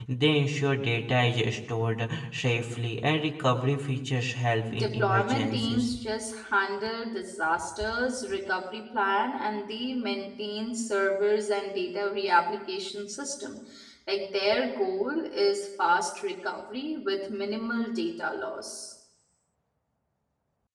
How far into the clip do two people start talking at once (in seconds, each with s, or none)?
4.7 s